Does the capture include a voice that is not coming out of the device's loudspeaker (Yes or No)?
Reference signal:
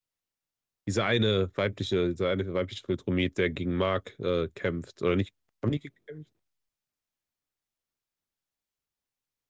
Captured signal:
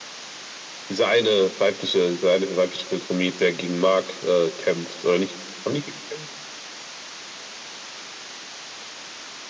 No